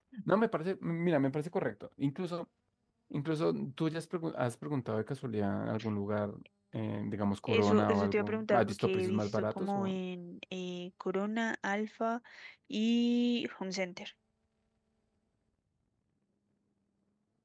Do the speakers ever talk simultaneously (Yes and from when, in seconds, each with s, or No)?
Yes, from 7.5 s